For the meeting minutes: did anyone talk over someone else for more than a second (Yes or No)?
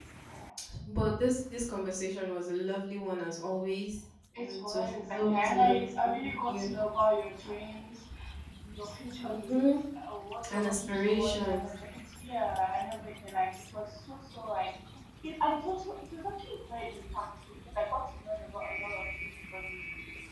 Yes